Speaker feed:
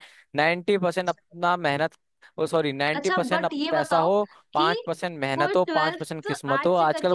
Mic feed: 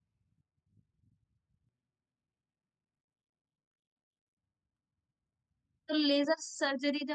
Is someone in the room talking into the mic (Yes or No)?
Yes